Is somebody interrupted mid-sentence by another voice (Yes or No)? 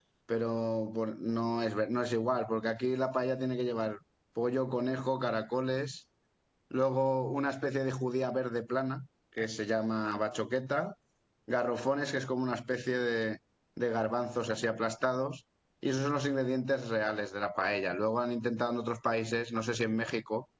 No